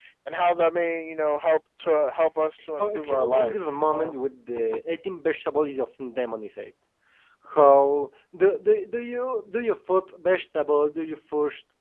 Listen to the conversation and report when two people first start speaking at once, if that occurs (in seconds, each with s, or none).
2.8 s